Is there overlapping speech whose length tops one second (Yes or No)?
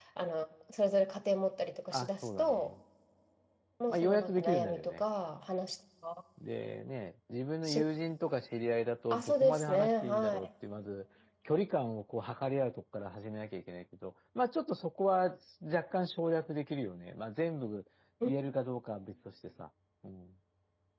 Yes